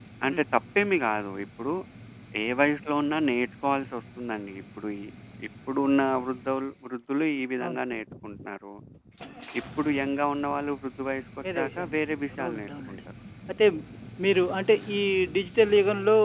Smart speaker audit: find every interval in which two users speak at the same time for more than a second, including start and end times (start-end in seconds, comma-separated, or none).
11.6-13.0